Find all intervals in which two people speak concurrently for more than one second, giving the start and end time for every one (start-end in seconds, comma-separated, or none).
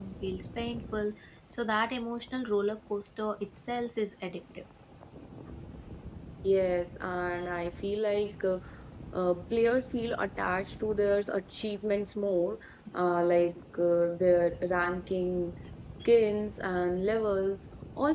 none